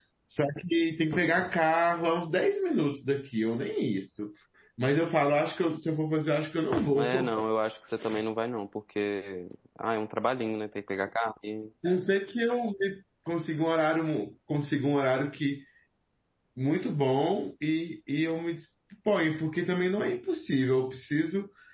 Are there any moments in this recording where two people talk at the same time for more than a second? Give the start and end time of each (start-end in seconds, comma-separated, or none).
none